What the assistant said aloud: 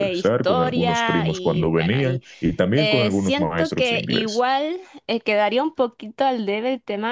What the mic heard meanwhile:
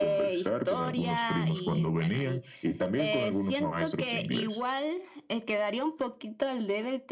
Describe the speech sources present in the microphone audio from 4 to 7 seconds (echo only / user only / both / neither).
echo only